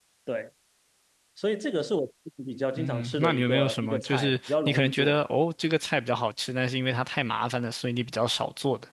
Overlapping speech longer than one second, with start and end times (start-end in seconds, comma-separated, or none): 2.8-5.2